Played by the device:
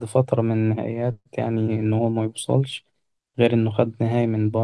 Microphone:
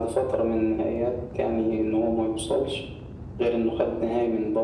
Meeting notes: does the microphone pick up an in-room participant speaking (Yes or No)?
No